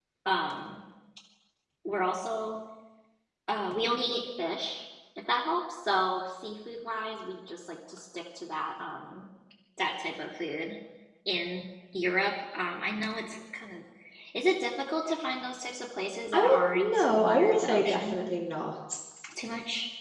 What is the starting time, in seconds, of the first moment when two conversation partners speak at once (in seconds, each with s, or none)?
16.3 s